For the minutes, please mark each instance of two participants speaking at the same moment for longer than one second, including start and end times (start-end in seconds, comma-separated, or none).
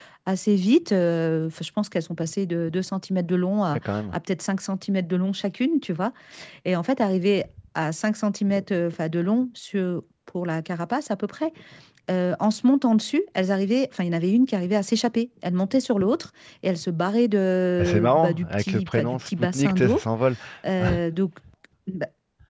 17.8-20.0